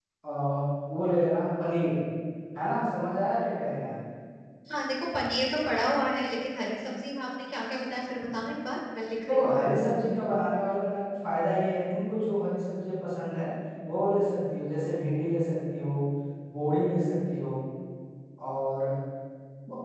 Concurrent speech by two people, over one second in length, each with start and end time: none

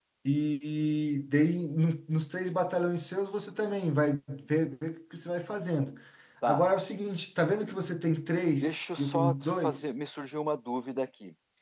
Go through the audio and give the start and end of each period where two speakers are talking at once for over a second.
8.6-9.9

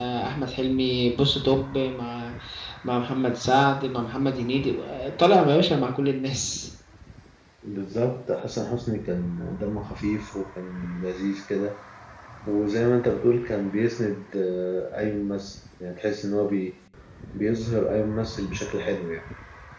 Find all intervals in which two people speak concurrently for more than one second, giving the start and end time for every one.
none

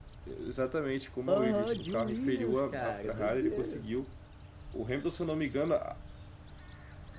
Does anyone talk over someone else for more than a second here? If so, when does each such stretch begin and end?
1.3-3.9

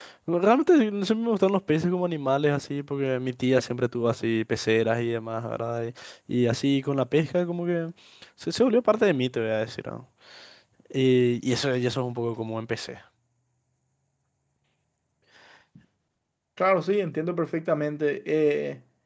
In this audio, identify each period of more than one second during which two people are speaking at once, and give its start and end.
none

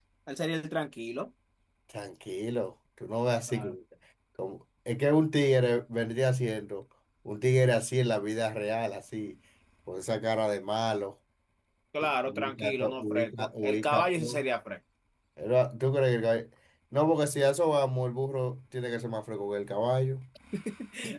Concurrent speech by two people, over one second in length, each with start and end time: 12.0-14.4

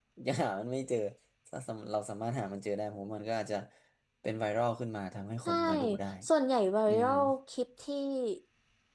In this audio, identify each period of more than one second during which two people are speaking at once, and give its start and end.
none

